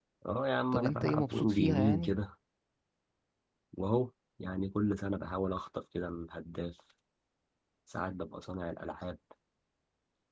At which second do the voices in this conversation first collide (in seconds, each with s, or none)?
0.7 s